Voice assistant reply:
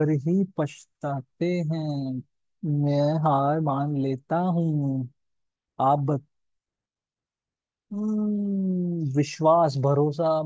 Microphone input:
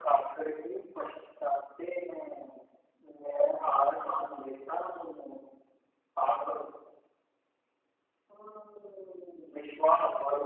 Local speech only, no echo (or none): none